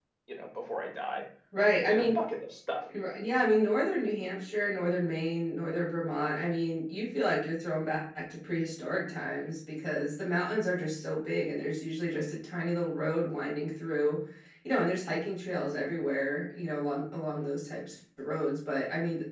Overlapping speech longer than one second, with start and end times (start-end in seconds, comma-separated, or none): none